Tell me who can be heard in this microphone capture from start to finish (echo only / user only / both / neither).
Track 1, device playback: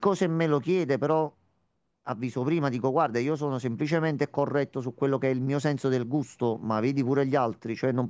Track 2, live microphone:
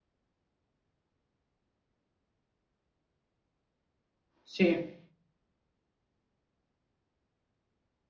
user only